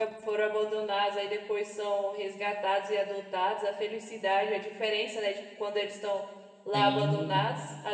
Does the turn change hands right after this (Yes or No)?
No